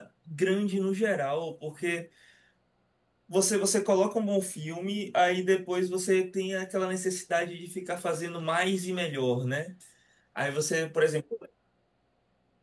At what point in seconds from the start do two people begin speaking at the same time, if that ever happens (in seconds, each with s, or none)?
none